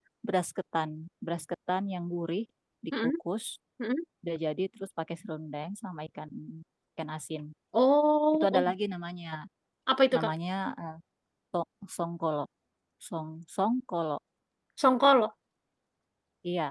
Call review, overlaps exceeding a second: none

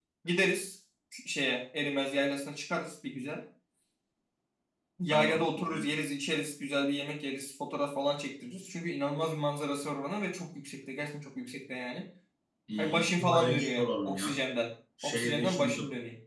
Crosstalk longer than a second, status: present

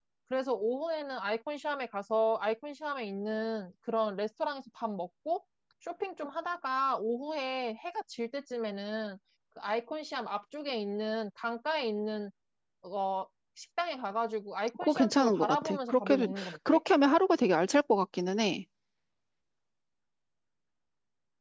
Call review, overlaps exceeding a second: present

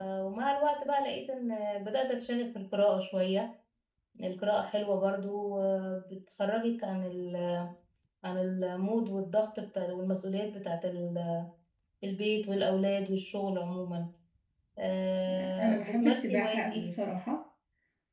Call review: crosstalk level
present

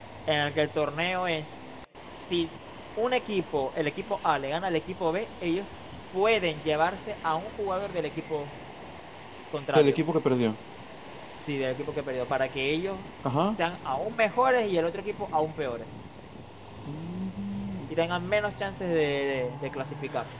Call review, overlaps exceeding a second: none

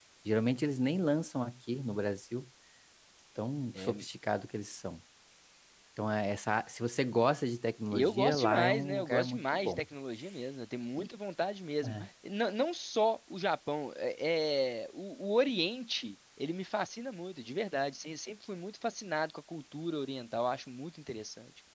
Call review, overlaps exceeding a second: present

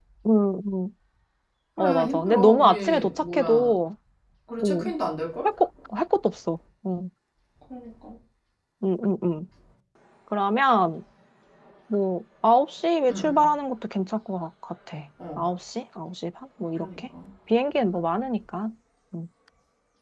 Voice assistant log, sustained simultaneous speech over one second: present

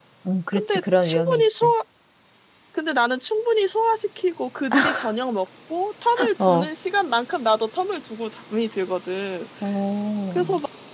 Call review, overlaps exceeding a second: present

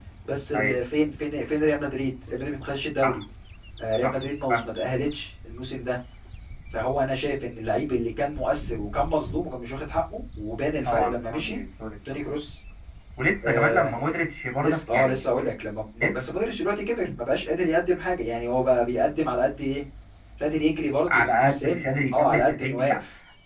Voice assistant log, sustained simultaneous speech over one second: present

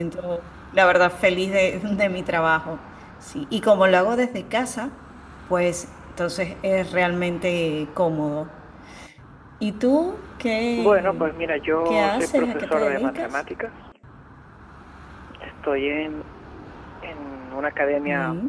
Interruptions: present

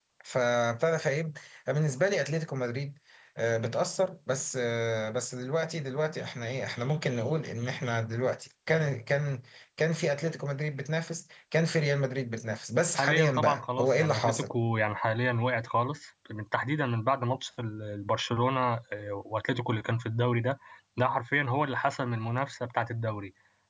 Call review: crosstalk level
present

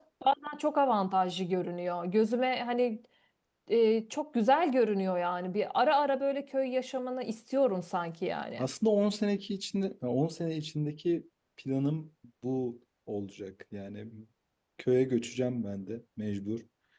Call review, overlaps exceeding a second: none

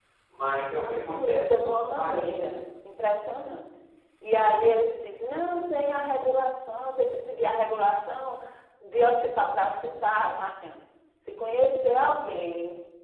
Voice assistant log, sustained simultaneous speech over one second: present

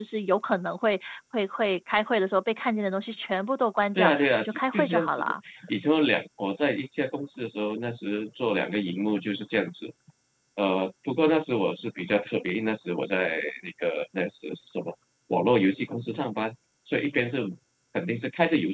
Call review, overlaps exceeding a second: present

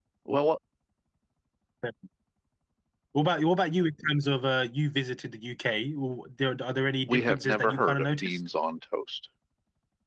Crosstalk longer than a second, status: present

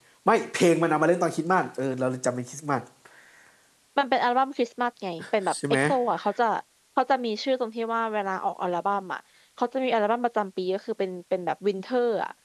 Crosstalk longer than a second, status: none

